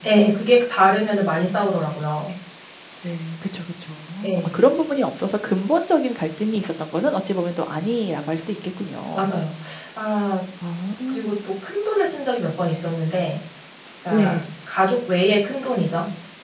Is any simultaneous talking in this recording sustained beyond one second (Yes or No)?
No